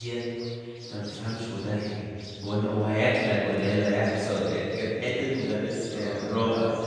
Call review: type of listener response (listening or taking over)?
taking over